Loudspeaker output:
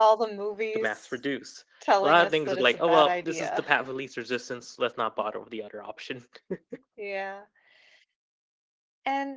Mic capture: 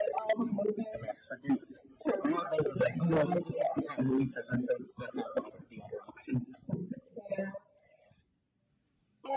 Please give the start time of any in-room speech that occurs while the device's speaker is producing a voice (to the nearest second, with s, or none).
none